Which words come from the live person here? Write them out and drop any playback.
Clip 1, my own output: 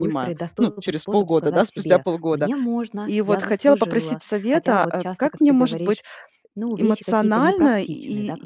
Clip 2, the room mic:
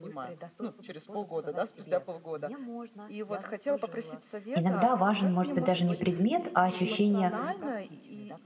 Иногда важен, может быть, даже не предмет, а ощущение

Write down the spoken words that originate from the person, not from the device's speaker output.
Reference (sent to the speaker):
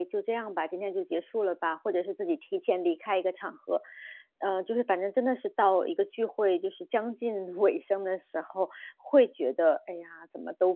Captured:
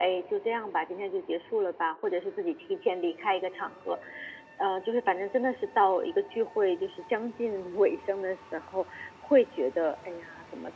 none

